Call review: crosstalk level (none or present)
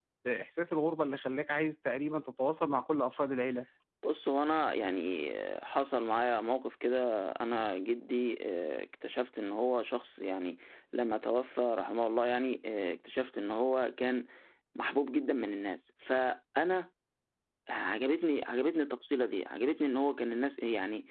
none